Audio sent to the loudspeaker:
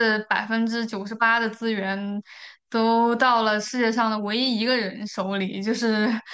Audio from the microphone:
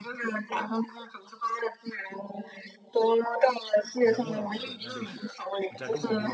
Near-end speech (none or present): present